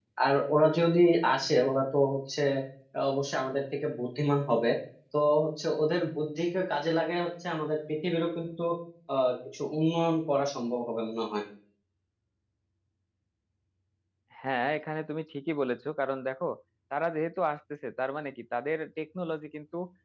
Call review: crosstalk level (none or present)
none